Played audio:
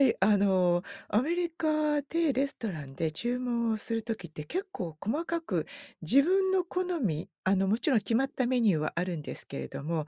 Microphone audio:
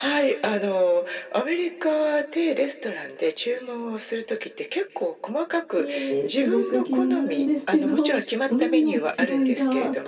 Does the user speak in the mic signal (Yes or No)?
Yes